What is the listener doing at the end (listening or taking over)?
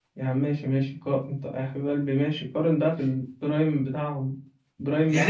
taking over